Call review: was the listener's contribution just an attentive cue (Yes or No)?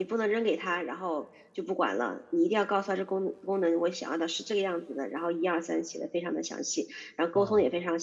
Yes